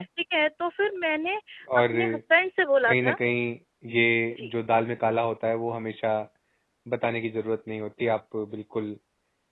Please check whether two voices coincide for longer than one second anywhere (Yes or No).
No